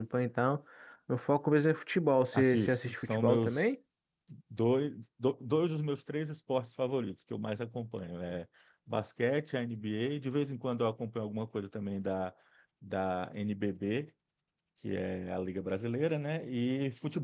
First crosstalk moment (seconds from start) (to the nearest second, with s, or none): 2 s